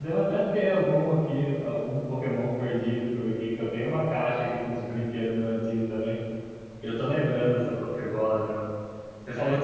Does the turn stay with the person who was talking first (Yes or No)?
Yes